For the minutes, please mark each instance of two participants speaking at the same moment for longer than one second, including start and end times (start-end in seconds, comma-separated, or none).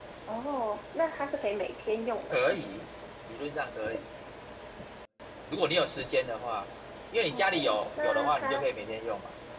7.3-8.7